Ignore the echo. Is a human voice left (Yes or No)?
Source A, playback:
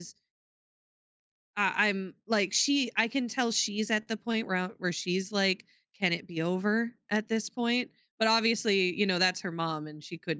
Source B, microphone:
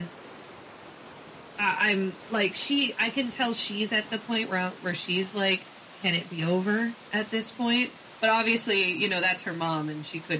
No